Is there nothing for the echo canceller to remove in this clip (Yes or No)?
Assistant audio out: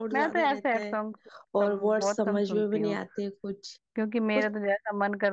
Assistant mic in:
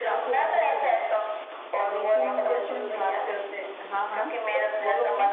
No